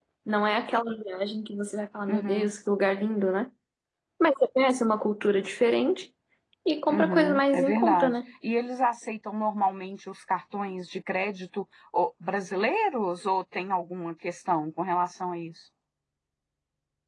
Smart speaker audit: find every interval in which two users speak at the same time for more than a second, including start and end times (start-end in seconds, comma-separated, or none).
6.9-8.2